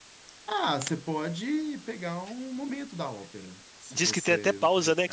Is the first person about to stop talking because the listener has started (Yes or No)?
Yes